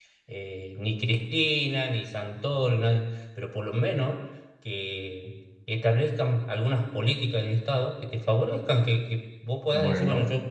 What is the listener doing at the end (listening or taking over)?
listening